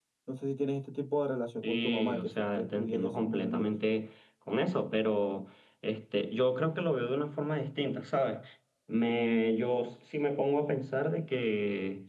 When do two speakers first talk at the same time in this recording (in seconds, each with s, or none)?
1.6 s